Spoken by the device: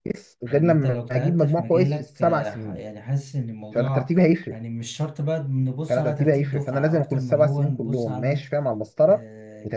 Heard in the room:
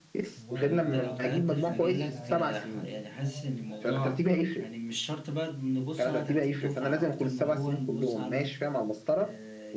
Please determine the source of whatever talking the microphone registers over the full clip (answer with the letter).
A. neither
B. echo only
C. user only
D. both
D